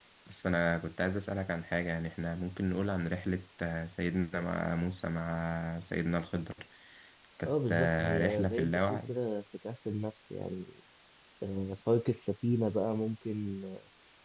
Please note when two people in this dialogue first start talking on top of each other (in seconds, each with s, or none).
7.4 s